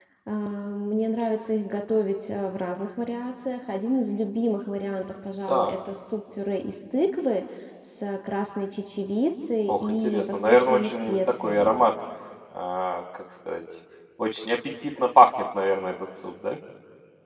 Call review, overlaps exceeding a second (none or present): present